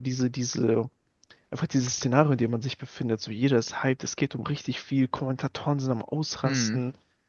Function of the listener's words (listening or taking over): listening